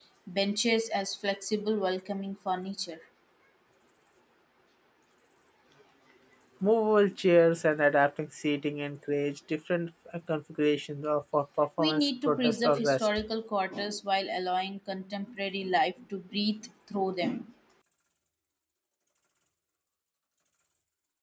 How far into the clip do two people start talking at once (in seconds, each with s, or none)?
11.8 s